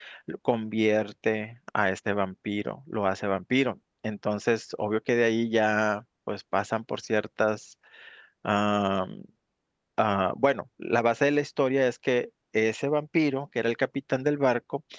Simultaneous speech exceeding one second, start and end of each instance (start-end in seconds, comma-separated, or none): none